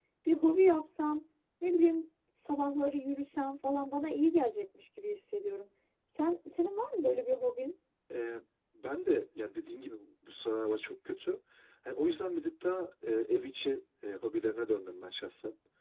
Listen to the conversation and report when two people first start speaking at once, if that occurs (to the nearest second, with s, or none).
none